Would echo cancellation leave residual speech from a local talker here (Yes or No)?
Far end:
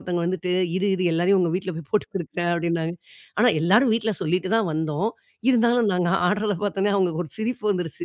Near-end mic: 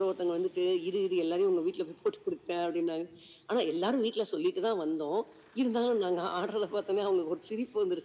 No